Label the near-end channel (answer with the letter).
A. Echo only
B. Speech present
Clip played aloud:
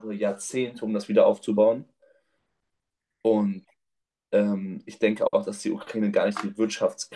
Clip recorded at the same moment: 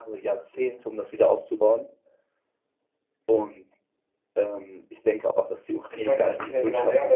B